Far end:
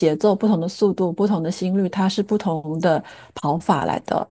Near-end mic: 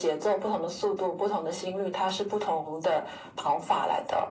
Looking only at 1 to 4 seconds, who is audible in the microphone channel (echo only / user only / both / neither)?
echo only